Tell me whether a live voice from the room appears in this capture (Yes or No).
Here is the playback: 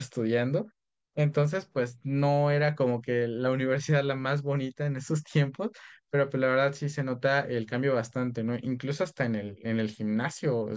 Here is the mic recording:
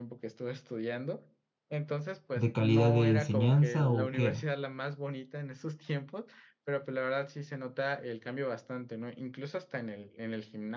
Yes